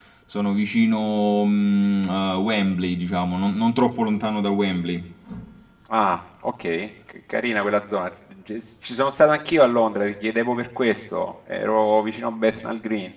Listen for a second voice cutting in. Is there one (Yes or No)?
No